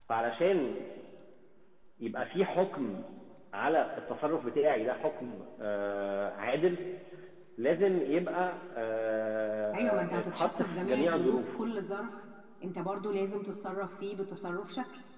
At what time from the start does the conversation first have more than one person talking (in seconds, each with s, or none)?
9.7 s